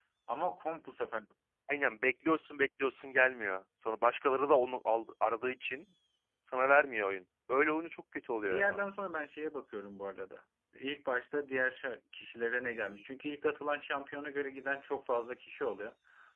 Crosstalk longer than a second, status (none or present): none